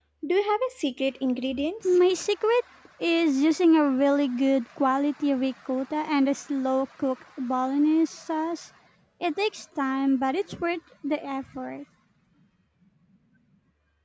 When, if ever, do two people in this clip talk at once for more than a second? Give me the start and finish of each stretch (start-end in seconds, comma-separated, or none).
none